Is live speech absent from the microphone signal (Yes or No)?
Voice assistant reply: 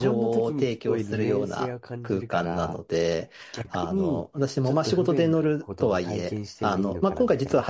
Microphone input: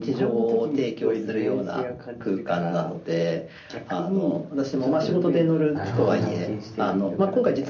No